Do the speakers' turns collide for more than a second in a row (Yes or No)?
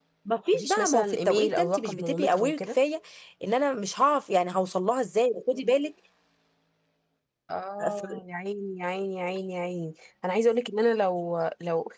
Yes